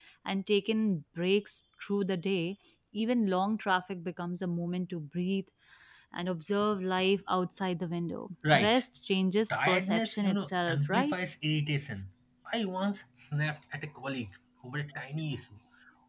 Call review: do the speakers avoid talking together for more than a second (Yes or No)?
No